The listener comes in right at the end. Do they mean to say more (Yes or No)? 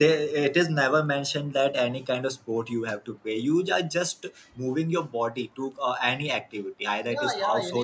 Yes